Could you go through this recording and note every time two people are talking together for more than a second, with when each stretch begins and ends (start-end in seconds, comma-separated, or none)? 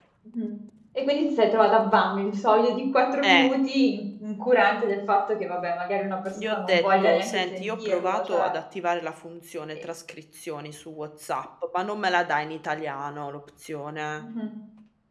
6.5-8.5